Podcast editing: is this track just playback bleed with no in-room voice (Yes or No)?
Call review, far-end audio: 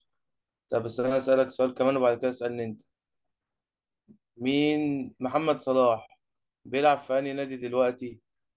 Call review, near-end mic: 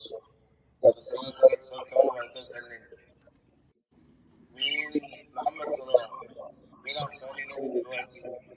Yes